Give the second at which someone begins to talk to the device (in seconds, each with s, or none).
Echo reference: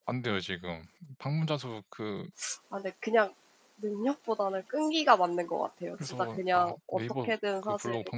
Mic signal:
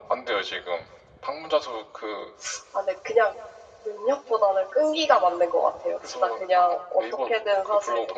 none